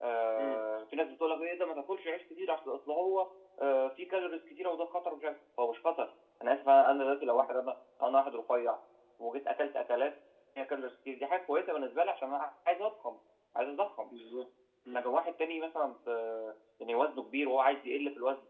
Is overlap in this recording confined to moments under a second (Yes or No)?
Yes